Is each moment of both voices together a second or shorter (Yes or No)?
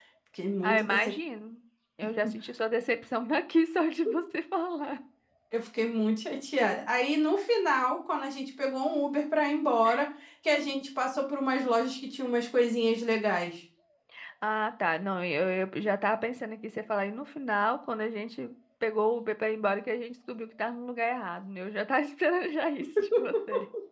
Yes